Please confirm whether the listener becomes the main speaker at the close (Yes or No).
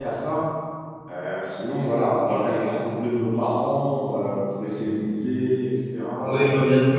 Yes